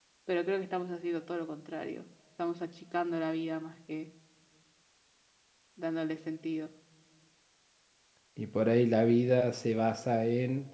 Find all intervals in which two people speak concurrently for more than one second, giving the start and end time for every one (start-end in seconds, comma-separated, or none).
none